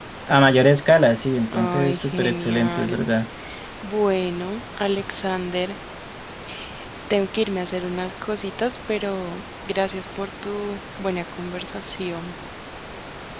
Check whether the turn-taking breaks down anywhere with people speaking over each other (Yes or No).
Yes